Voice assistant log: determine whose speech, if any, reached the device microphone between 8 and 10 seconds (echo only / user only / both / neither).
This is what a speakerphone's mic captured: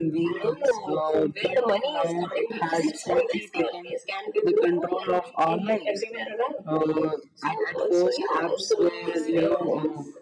both